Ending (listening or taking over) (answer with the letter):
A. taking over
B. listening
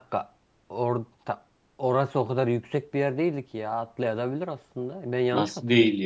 A